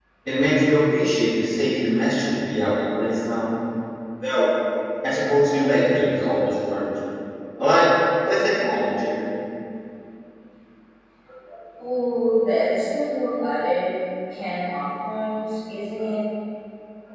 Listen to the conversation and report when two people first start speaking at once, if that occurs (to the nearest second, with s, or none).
none